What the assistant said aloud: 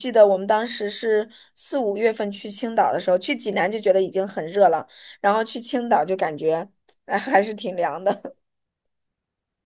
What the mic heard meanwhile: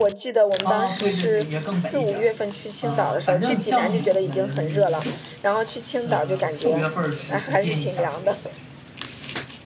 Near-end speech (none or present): present